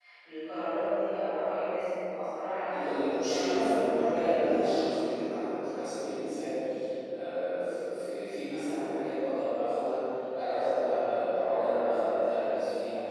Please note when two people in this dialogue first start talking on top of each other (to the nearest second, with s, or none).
3 s